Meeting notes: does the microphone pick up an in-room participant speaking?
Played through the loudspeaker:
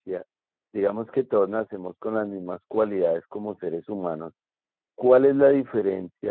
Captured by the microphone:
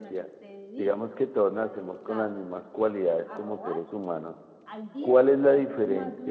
Yes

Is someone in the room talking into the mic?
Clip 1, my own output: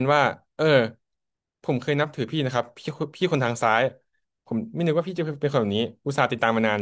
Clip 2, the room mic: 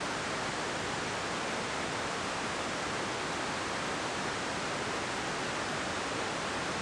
No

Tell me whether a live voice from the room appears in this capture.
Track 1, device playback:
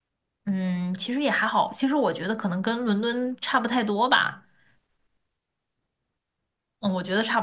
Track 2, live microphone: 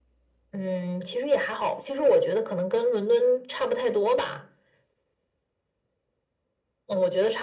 No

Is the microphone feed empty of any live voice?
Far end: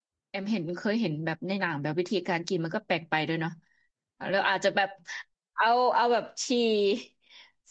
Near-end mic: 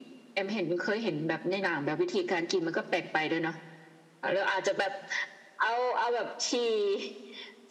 Yes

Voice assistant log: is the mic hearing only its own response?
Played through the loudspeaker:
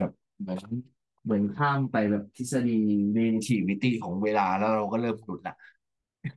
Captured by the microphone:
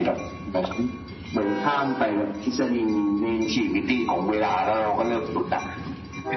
Yes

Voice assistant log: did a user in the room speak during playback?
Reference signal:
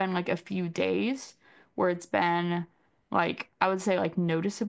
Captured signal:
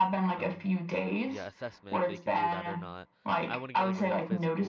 Yes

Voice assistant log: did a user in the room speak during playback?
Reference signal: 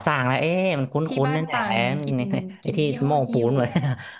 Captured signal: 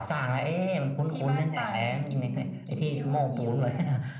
No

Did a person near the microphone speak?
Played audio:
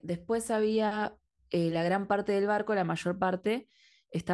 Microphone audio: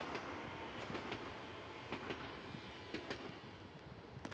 No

